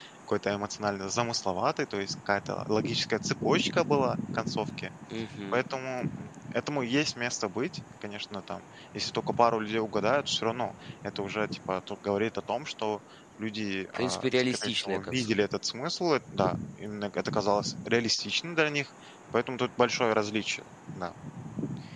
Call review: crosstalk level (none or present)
present